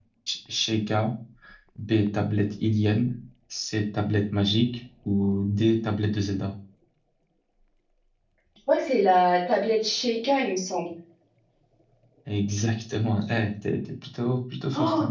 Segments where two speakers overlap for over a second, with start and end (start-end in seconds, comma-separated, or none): none